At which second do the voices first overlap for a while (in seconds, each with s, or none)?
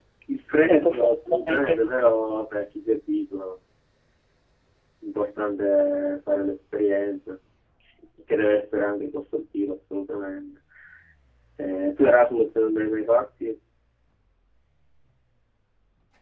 0.6 s